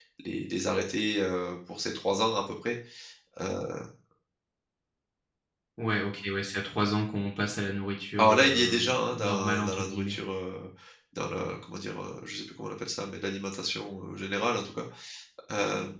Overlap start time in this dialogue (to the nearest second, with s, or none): 8 s